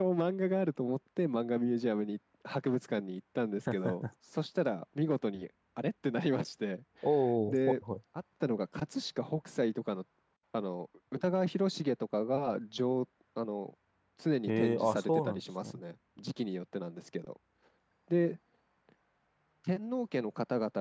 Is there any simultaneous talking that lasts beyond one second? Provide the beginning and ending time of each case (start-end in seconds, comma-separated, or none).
14.5-15.8